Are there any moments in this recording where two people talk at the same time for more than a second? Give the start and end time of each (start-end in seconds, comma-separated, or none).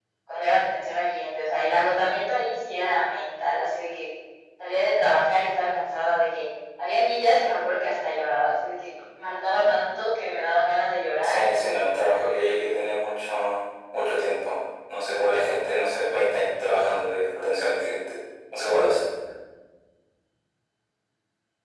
11.2-12.5